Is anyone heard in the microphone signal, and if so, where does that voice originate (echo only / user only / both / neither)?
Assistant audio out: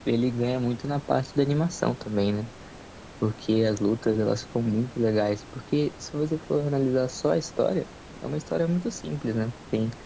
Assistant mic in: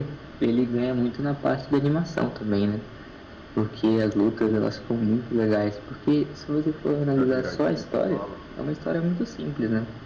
both